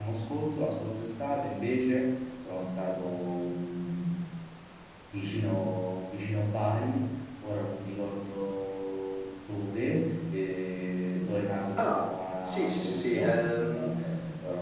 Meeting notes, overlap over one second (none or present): present